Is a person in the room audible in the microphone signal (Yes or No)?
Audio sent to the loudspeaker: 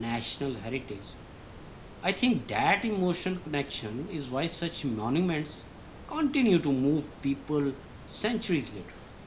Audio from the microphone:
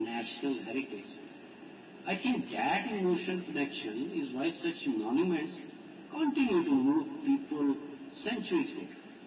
No